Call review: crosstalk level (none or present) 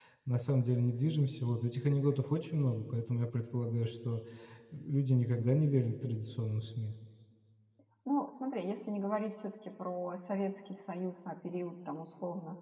none